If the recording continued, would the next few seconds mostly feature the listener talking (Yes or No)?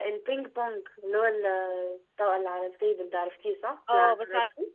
Yes